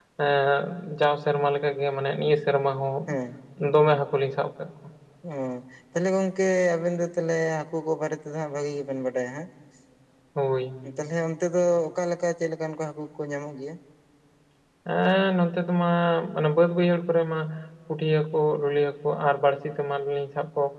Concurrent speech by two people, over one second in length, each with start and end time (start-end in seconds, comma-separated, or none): none